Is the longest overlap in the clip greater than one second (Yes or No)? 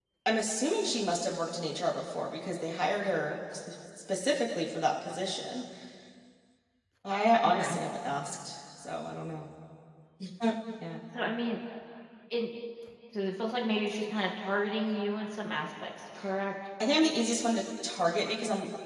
No